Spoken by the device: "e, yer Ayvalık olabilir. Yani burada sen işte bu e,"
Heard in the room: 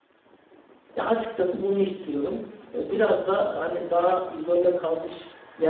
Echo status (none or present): none